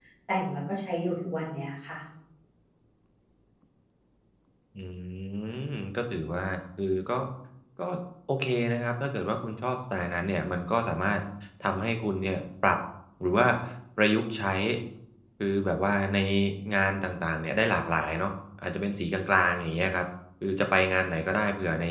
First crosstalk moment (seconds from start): none

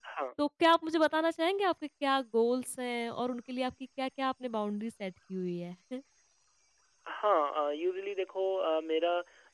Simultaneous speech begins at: none

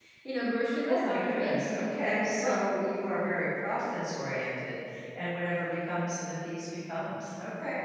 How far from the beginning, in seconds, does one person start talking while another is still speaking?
0.9 s

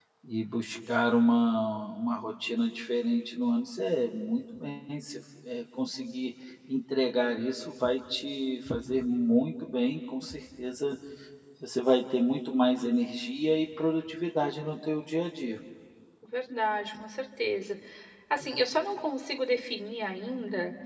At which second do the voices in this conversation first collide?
none

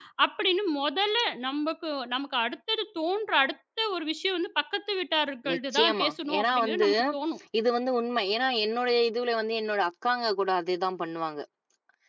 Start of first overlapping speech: 5.4 s

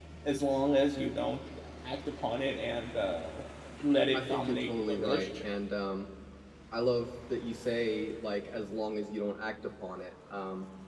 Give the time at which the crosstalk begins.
4.1 s

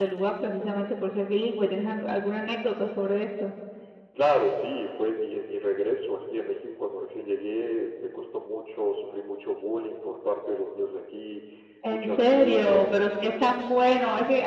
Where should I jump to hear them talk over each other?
11.9 s

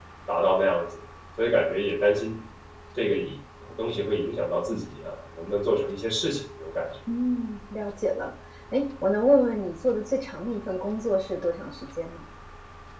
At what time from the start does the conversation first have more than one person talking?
none

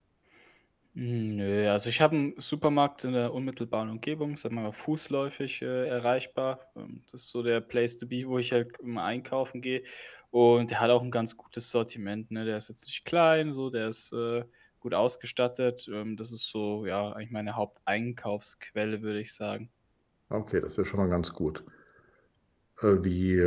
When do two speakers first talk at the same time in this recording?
none

